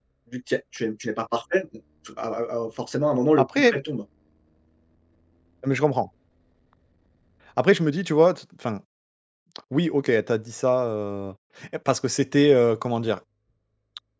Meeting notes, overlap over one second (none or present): none